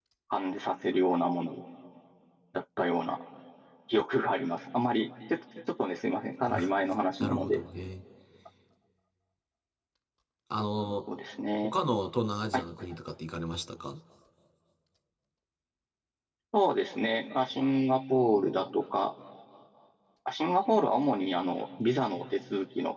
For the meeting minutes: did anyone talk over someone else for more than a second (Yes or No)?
No